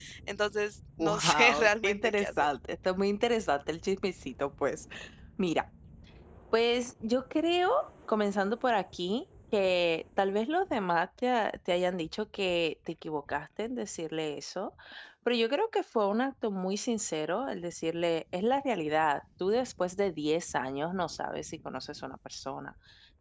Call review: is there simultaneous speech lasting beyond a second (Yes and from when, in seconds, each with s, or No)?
Yes, from 1.0 s